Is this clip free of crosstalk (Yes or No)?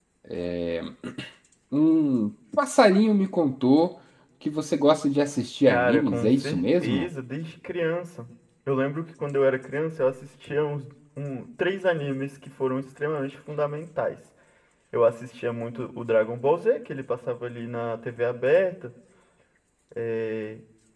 No